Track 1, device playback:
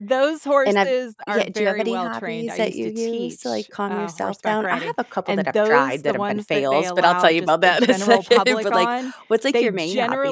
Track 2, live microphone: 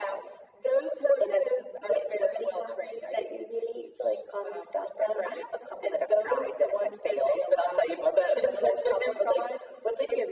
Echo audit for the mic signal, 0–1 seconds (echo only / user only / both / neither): echo only